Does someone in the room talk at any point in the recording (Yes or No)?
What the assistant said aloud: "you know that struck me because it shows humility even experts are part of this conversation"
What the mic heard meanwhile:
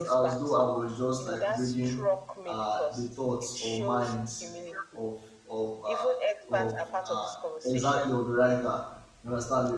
Yes